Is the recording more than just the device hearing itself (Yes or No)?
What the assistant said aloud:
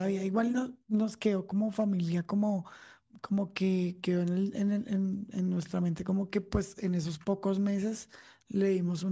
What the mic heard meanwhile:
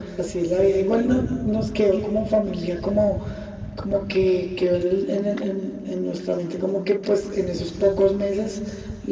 No